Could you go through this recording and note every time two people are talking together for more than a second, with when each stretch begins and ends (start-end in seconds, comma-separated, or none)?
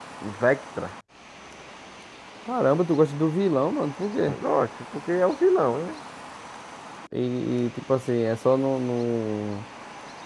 none